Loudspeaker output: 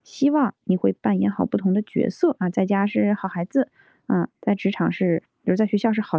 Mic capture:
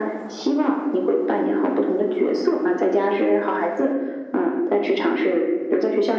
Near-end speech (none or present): none